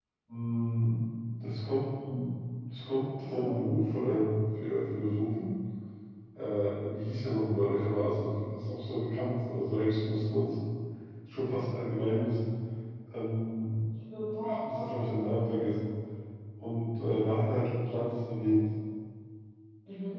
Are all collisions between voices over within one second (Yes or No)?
No